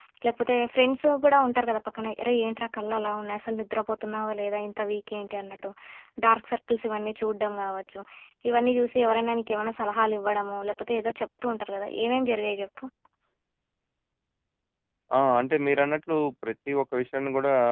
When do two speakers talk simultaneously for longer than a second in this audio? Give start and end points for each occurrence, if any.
none

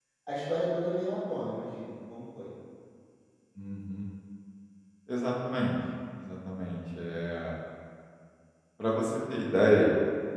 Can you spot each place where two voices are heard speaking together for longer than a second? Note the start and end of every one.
none

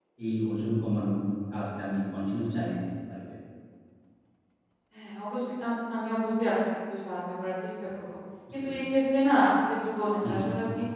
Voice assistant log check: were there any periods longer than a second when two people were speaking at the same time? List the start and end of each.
none

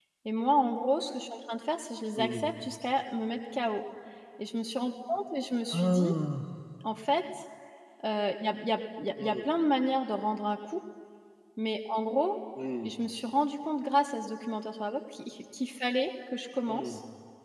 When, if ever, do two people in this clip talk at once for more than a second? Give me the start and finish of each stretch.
none

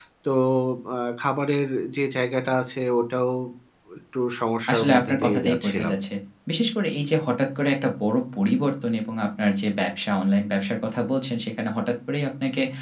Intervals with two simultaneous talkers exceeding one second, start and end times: 4.7-5.9

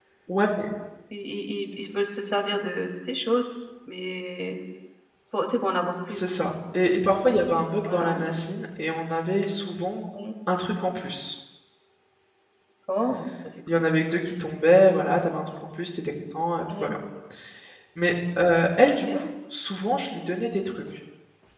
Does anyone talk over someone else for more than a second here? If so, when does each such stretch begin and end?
none

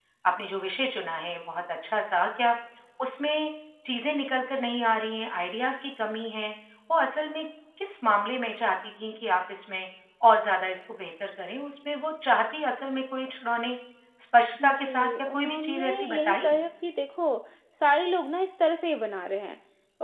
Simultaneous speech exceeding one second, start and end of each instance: 14.6-16.6

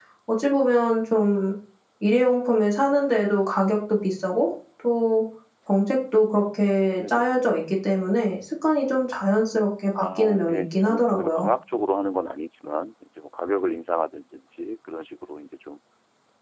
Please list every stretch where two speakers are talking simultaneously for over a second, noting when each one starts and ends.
10.0-11.5

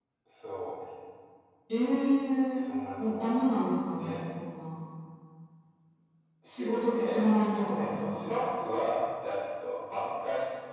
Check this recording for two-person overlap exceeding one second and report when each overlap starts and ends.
6.5-8.3

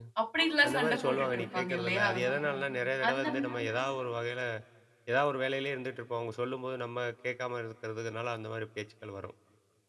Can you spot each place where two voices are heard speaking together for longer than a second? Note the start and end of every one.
0.7-2.1

